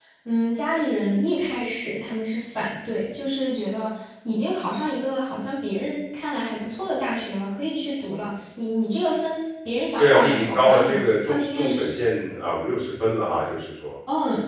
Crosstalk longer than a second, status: present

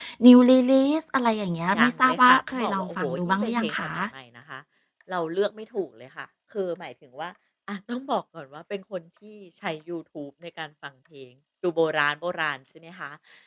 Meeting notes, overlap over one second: present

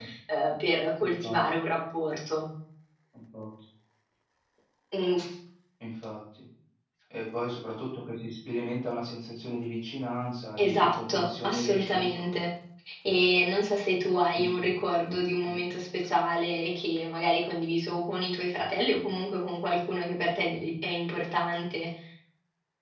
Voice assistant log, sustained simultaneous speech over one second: present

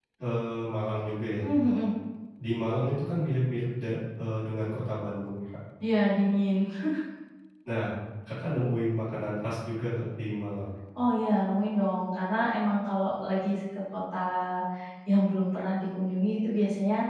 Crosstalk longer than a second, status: none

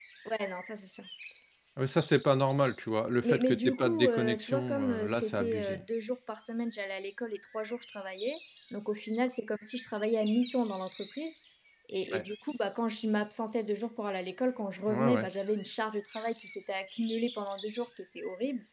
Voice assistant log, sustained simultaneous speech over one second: present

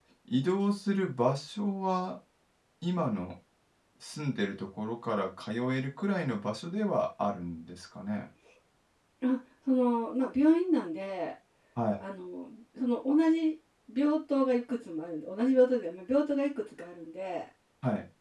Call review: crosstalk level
none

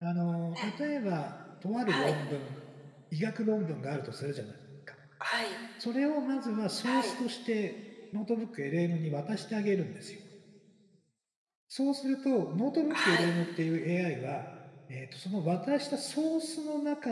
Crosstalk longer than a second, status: none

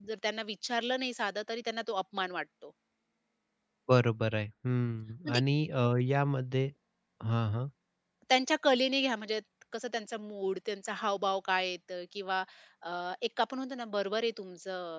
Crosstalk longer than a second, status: none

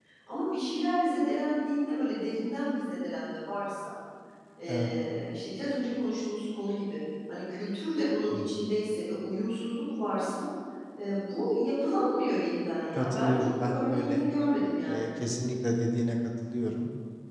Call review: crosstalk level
present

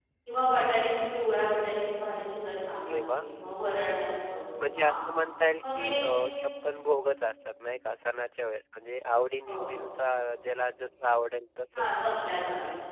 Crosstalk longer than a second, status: none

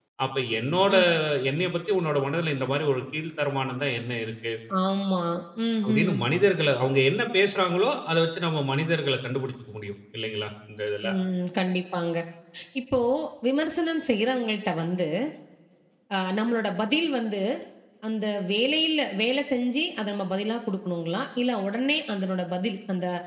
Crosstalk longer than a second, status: none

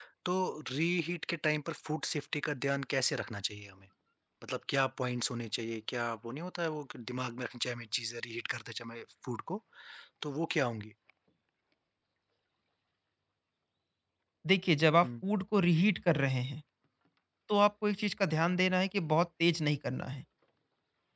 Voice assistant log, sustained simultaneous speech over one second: none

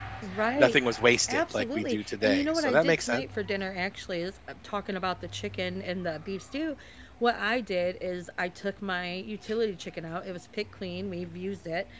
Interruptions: present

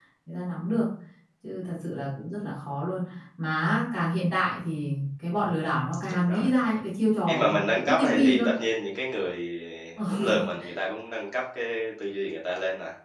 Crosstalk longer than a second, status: present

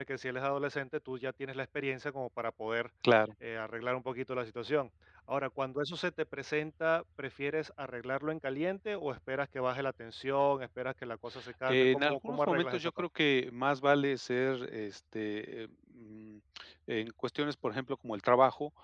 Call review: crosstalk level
present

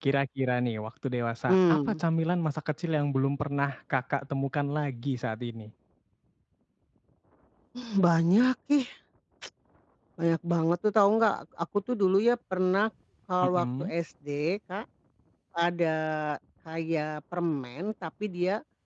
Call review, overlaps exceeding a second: none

